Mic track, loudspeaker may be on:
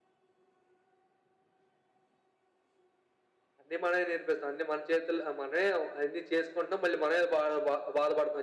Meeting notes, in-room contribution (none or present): none